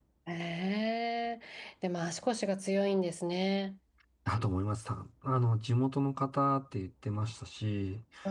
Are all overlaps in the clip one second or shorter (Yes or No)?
Yes